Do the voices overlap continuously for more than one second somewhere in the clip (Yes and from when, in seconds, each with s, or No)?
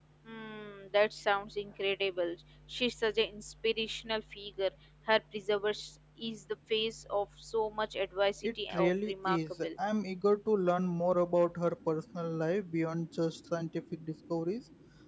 Yes, from 8.4 s